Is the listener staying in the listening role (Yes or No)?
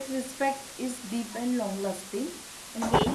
Yes